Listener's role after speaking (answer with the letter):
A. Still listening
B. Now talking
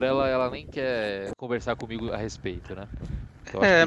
B